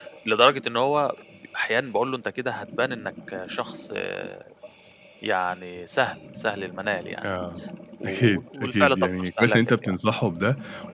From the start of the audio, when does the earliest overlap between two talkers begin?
8 s

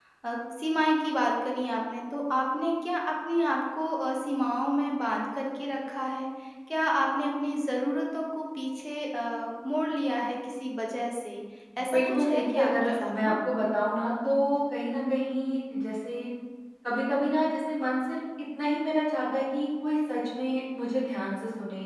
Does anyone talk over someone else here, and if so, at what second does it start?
12 s

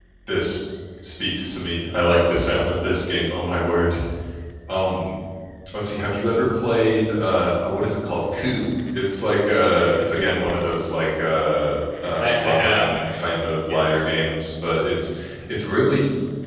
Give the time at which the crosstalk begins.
12 s

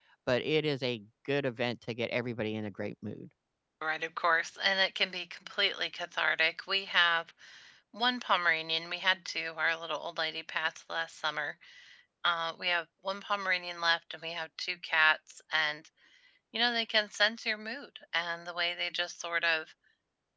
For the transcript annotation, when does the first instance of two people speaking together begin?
none

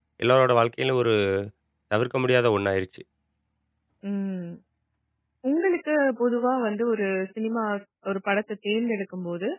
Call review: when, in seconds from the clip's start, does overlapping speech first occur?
none

